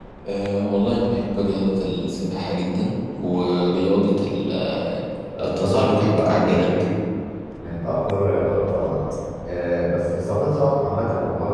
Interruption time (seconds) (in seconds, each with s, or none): 5.4 s